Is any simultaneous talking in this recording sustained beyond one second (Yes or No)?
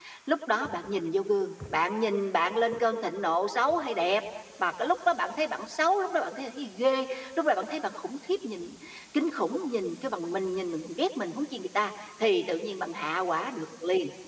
No